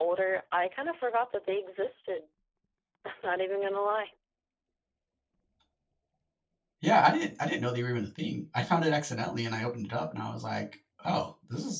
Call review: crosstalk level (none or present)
none